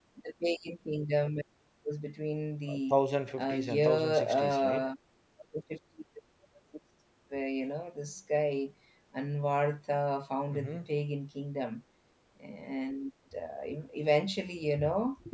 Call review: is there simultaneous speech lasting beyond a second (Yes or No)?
Yes